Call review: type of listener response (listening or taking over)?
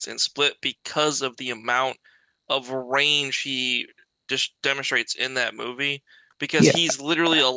listening